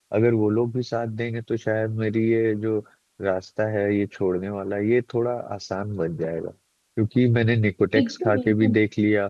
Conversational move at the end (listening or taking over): listening